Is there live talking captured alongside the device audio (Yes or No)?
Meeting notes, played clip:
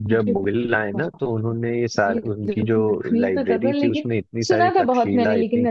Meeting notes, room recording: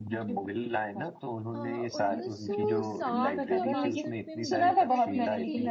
Yes